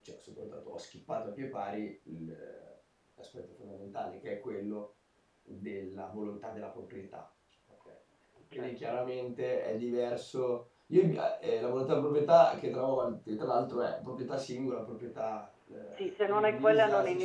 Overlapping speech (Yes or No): Yes